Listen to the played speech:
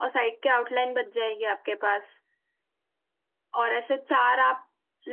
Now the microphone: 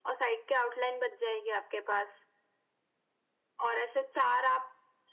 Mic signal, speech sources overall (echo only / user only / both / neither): echo only